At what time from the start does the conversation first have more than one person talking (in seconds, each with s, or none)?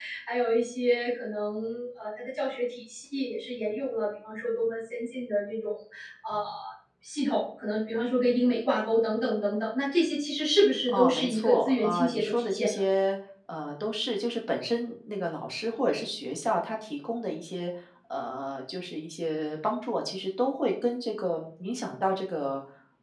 10.9 s